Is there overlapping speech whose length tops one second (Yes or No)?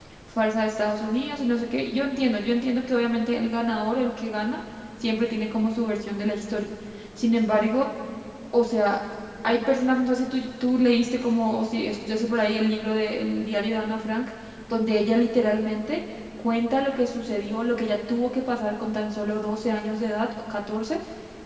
No